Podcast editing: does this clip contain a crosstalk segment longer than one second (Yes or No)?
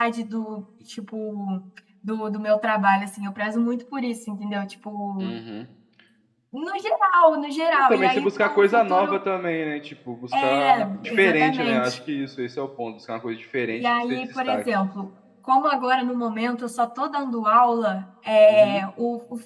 Yes